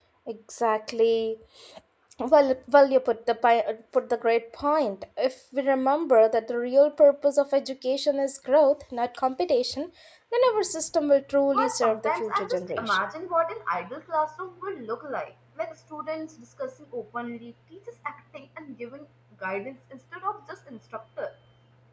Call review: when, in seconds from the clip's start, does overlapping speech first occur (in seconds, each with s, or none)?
11.5 s